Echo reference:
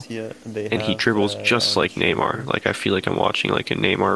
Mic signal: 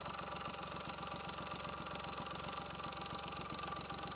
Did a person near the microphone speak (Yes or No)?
No